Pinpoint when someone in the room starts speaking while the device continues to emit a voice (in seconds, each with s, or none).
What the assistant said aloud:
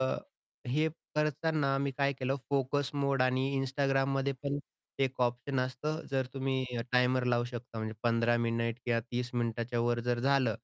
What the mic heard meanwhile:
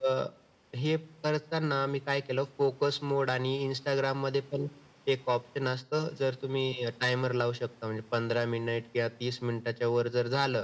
none